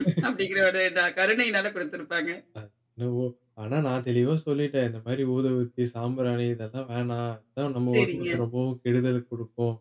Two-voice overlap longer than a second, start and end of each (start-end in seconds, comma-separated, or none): none